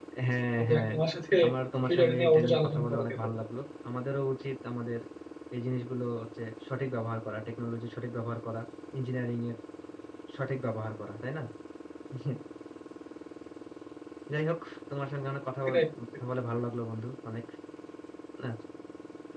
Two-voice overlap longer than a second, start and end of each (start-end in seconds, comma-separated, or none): 1.9-3.4